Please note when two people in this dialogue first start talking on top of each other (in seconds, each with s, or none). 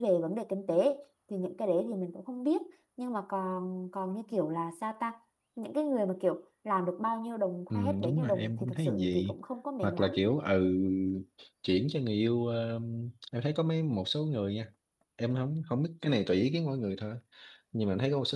7.7 s